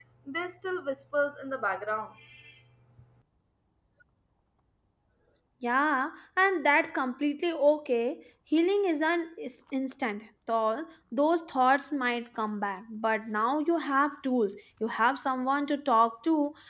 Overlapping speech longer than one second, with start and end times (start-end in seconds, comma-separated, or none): none